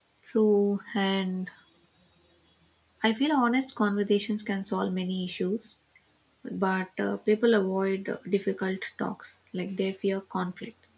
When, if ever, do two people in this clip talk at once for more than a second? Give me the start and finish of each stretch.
none

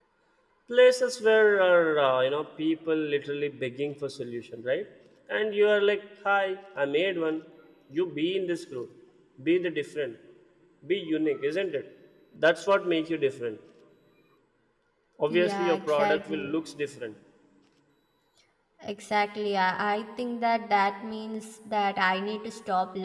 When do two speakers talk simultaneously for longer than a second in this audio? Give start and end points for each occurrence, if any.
15.3-16.5

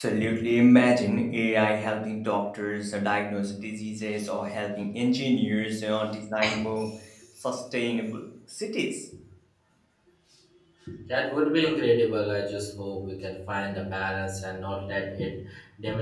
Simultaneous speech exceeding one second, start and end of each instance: none

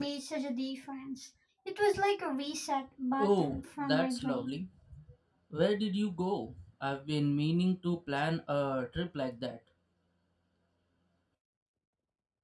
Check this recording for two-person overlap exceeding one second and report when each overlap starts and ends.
3.2-4.6

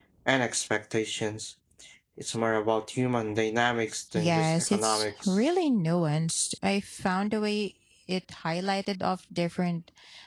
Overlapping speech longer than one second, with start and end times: 4.2-5.5

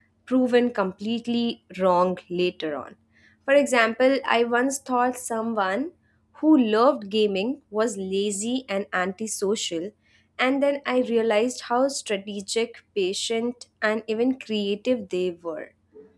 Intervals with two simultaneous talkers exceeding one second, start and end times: none

